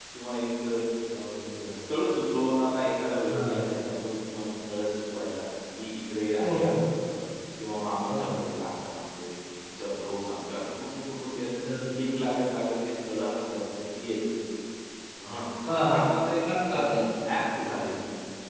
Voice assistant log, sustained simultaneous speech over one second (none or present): none